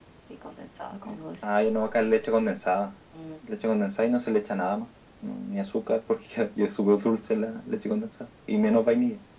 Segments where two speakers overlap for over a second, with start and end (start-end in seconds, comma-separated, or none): none